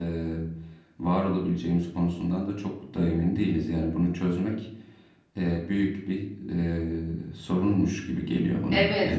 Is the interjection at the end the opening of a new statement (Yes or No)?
Yes